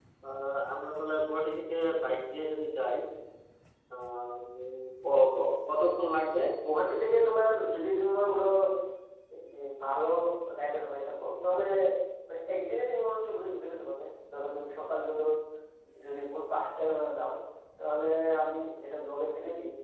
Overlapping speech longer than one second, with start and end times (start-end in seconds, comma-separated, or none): none